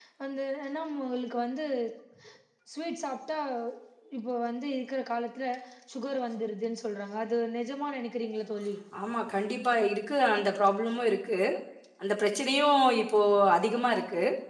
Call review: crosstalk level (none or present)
none